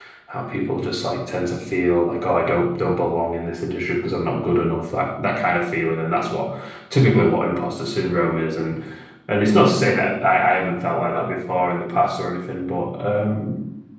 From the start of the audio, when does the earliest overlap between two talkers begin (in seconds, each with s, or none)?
none